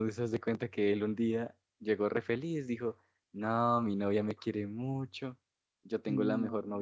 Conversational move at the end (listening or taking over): listening